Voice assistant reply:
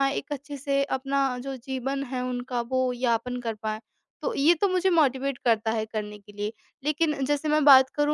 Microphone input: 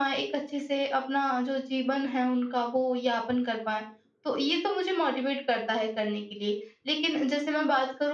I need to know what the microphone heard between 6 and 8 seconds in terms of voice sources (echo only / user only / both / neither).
echo only